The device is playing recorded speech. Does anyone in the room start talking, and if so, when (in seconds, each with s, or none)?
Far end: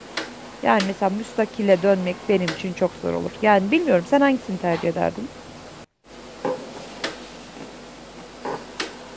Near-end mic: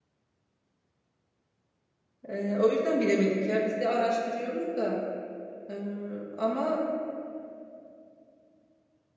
2.3 s